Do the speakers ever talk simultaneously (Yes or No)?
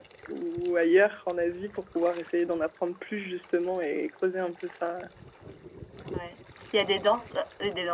No